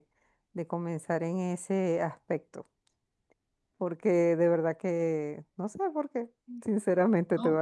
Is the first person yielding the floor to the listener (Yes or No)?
No